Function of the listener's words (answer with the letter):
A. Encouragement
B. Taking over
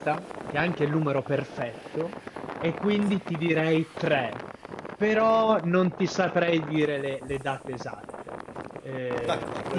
B